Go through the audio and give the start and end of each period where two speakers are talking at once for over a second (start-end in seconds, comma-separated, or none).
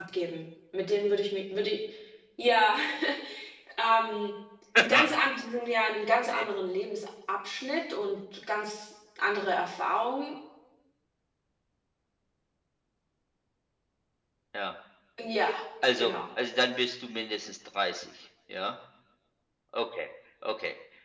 none